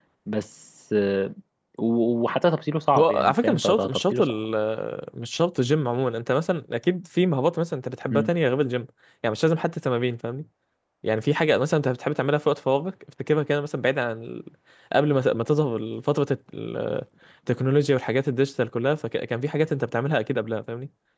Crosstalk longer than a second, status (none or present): present